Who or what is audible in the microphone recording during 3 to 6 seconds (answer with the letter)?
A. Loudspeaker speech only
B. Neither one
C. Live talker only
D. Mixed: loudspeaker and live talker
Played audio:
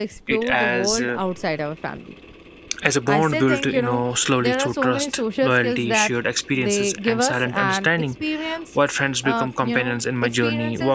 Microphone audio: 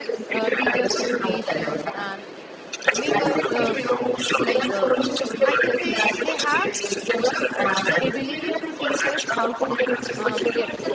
D